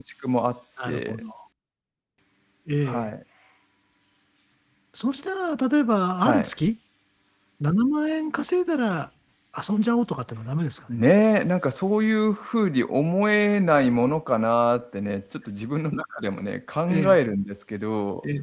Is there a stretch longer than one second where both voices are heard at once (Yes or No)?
No